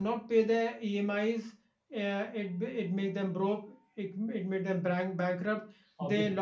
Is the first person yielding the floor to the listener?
No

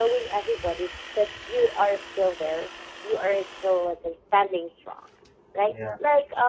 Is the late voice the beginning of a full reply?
No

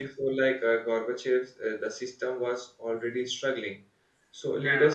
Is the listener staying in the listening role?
Yes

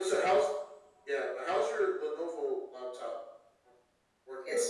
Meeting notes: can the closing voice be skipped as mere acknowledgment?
No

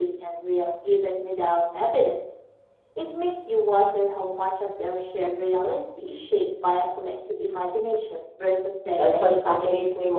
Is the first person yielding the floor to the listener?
Yes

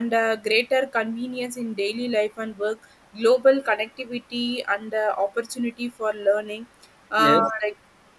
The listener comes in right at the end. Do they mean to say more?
No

